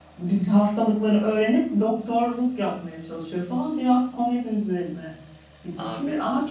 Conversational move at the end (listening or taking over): listening